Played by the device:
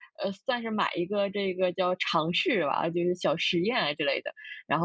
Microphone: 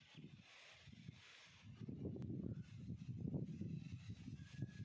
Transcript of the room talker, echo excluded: none

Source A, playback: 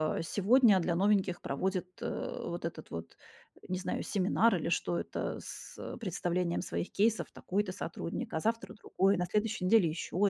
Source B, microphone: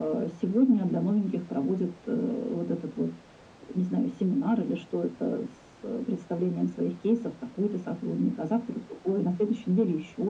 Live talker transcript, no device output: none

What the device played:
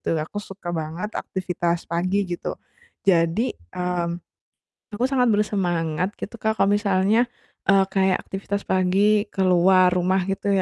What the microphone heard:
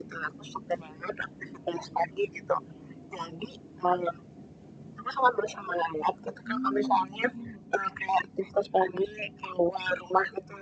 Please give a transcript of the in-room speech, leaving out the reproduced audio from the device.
Hmm, betul.

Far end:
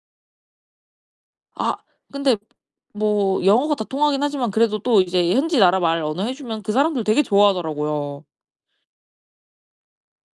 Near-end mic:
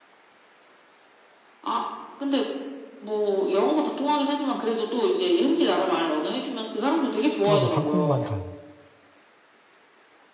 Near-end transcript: 아 네. 방콕만 가요.

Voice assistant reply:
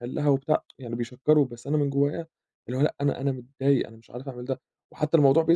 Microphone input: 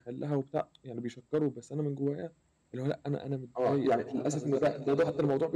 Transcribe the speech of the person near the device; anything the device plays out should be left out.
آه. يعني للأسف إنه ده ده ضغْط

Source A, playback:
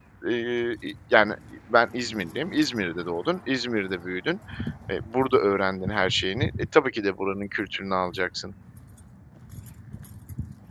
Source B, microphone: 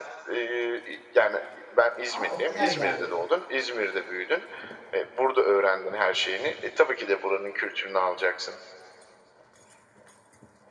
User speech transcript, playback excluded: A! O kadar ilerledi.

